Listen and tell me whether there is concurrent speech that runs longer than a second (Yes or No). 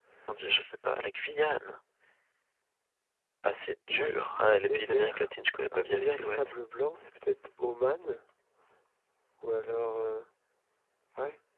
Yes